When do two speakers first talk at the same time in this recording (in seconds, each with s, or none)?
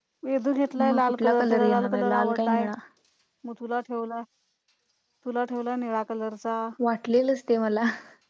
0.9 s